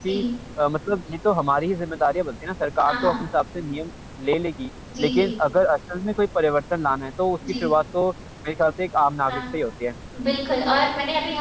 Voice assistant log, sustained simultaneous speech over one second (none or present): none